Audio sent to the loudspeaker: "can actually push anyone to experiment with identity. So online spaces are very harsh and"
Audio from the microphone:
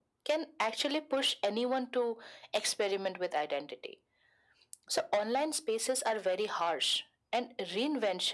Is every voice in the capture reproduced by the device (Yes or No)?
Yes